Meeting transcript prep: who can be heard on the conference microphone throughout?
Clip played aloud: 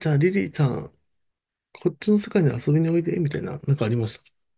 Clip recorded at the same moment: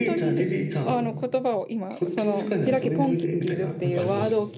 both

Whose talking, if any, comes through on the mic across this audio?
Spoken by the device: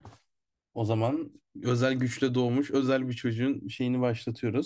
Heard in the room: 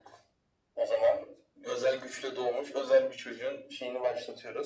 echo only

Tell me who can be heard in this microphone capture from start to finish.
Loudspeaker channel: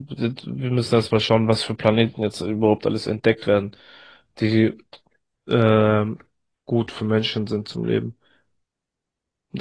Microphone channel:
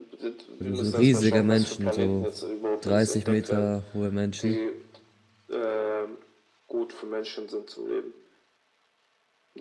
both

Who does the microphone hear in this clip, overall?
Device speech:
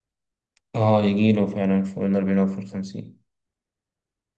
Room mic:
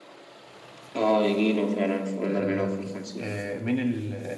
both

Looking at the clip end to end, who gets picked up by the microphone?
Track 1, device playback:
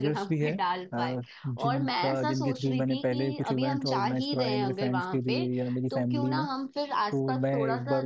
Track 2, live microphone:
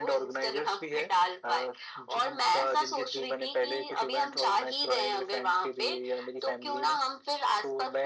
echo only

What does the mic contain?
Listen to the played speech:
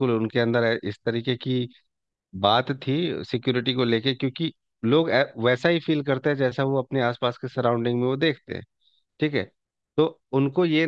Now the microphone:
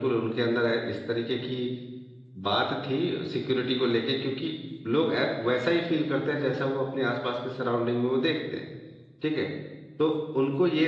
echo only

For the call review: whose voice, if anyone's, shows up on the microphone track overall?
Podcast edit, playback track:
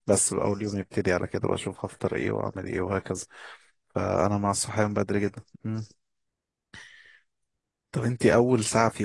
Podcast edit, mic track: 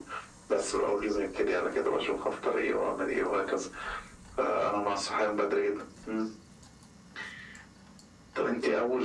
echo only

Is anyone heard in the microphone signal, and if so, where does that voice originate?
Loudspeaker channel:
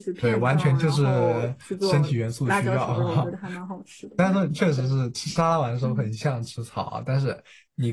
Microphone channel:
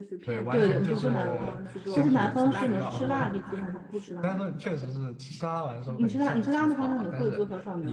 both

